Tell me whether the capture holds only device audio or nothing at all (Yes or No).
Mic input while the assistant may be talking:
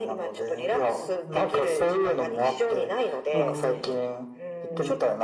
No